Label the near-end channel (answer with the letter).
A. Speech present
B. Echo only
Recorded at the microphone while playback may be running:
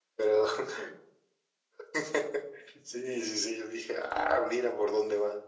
B